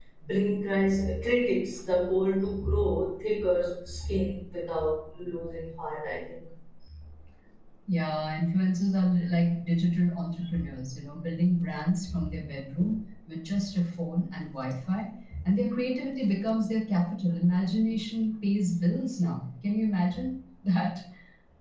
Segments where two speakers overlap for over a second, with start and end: none

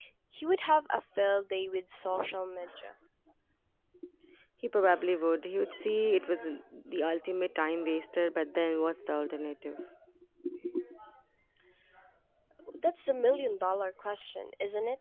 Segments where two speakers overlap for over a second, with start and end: none

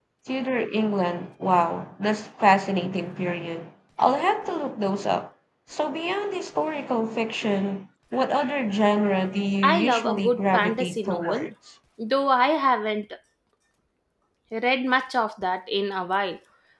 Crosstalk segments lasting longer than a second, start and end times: 9.6-11.5

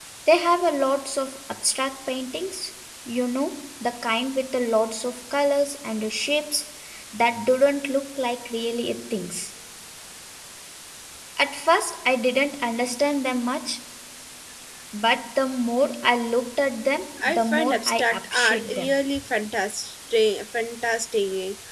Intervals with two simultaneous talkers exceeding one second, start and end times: 17.2-18.9

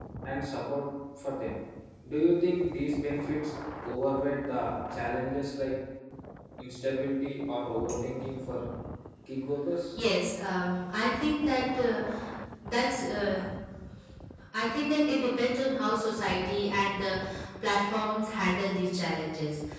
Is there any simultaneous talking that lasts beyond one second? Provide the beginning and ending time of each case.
none

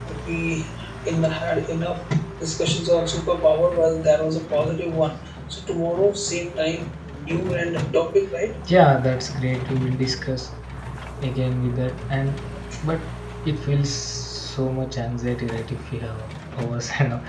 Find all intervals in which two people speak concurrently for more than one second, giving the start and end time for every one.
none

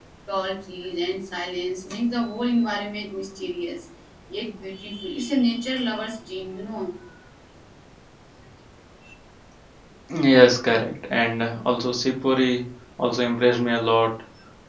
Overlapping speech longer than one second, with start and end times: none

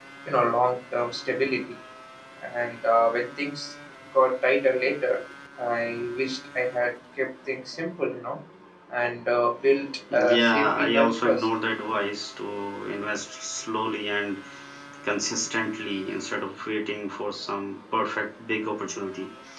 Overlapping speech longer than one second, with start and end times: 10.1-11.5

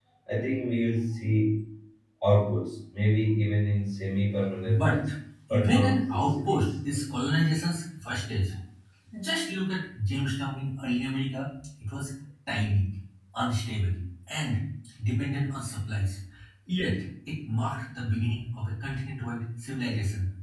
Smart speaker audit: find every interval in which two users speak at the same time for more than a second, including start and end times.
5.5-6.7

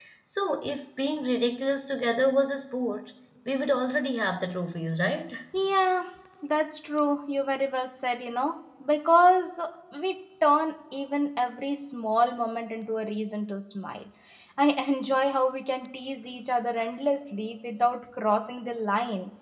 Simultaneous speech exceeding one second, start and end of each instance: none

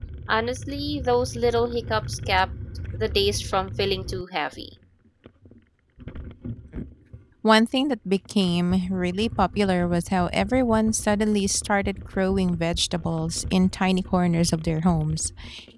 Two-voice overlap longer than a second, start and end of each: none

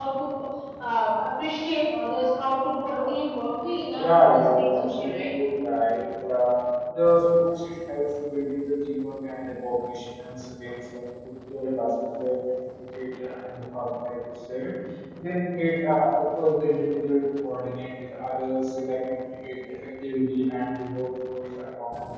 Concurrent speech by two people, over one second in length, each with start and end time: 3.9-5.2

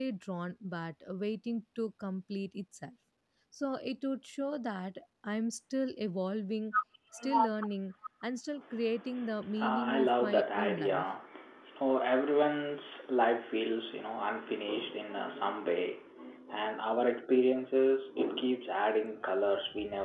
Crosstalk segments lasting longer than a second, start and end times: 9.6-11.0

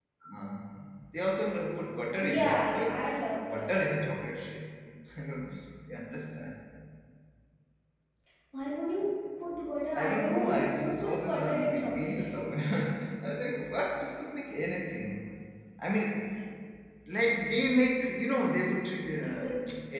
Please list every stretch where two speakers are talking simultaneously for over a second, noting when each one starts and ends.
2.2-4.0, 9.9-12.4

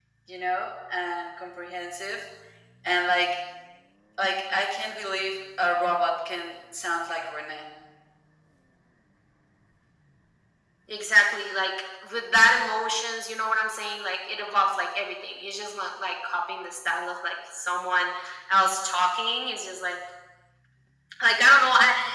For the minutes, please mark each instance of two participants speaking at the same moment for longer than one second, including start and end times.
none

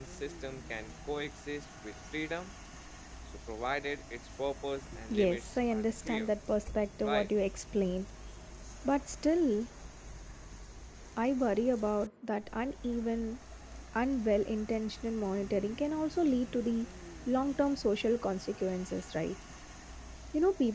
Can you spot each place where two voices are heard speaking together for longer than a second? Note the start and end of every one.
5.1-6.3

